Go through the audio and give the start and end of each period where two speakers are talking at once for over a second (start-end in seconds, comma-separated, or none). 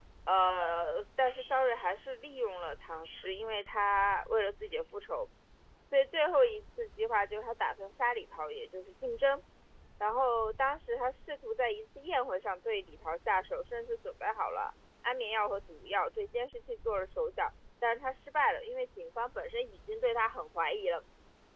none